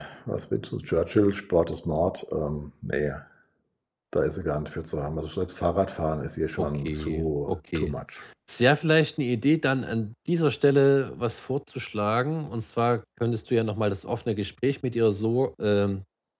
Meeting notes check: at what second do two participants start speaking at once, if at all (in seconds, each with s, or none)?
6.6 s